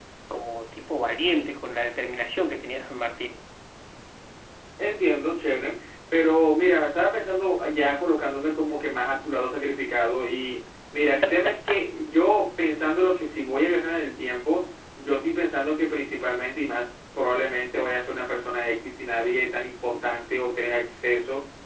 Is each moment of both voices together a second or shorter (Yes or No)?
Yes